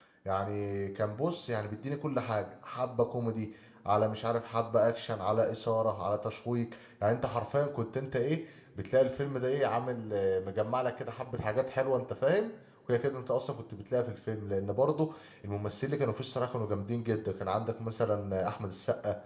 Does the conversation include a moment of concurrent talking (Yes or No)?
No